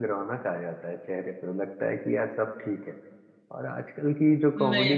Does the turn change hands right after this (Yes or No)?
Yes